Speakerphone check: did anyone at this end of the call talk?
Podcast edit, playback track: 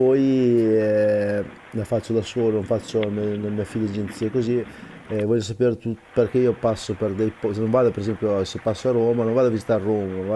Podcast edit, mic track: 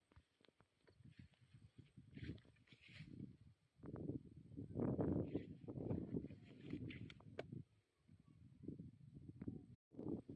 No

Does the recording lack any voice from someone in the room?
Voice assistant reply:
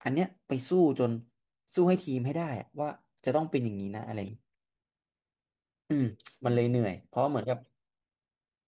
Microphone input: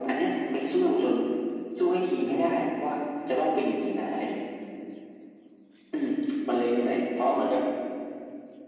Yes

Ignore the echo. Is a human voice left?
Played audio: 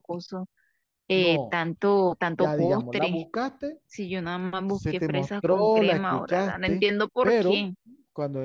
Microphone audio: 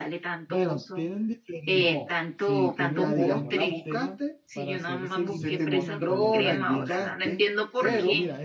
Yes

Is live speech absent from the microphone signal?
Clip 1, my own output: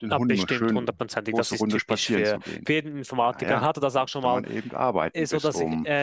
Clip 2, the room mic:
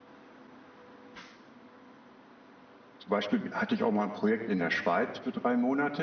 No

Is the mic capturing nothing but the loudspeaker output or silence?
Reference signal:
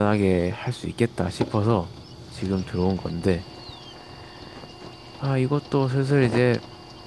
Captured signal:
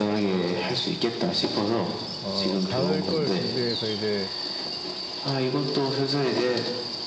No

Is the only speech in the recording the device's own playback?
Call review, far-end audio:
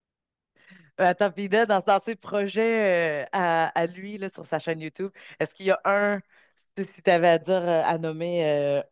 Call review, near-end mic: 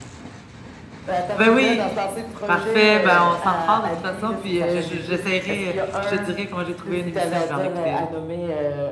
No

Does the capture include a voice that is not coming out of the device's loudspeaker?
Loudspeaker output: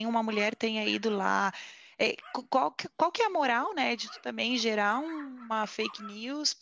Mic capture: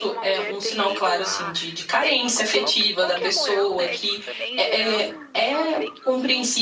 Yes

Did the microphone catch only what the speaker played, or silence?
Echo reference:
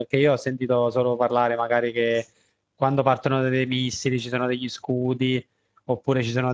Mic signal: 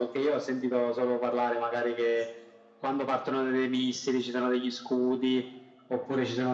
Yes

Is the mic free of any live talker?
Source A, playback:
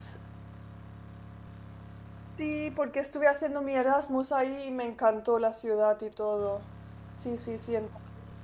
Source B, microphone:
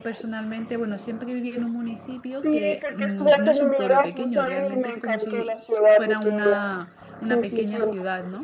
No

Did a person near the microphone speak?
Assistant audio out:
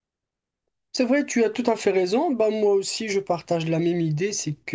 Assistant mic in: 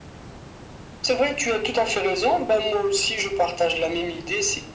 No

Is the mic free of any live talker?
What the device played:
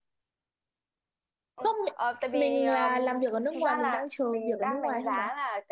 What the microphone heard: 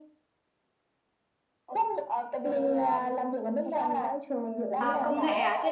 No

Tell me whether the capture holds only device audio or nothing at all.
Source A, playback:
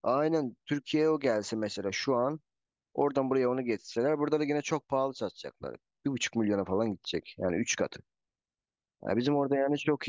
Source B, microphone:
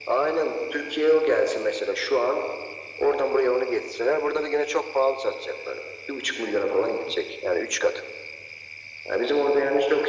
Yes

